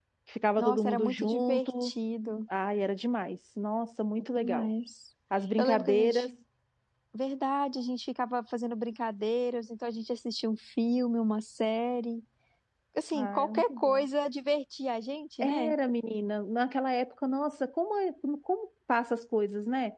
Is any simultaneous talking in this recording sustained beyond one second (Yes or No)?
Yes